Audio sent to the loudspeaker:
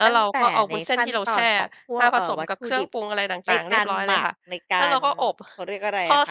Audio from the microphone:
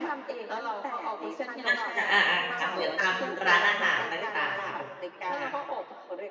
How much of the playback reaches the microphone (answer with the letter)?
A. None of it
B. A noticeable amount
B